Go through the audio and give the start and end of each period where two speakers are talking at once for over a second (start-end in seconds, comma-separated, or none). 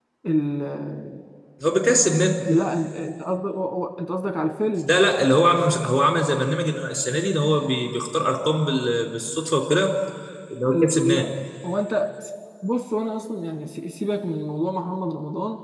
none